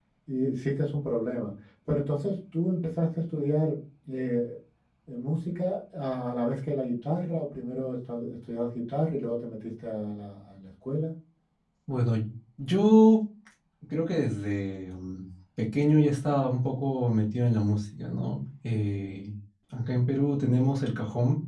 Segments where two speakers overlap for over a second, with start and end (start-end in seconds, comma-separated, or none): none